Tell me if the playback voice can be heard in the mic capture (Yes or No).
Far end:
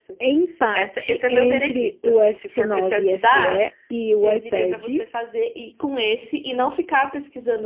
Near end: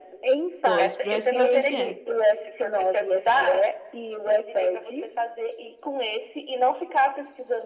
Yes